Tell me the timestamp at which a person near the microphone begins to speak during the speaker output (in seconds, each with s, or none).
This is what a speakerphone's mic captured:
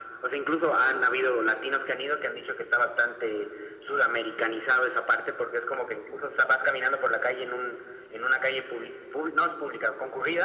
none